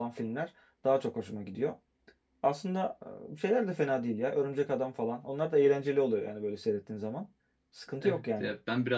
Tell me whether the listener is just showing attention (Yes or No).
No